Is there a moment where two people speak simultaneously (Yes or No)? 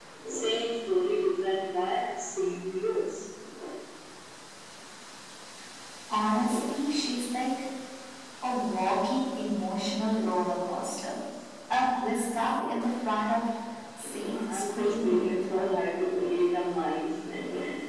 Yes